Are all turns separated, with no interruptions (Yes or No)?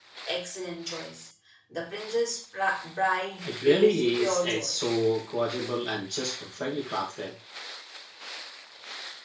No